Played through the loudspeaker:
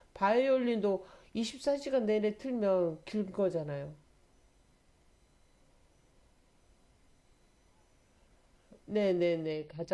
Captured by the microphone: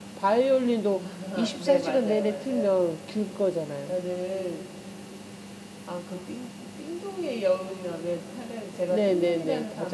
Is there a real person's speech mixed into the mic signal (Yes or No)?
Yes